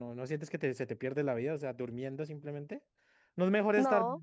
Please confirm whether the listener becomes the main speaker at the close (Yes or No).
No